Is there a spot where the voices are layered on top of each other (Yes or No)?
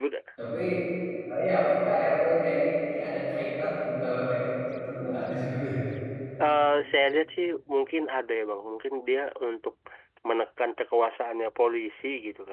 No